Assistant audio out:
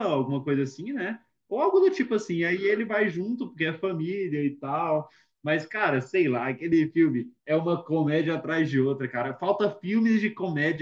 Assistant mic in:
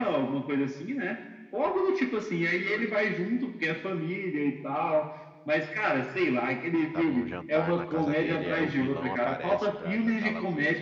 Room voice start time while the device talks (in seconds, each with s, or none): 6.9 s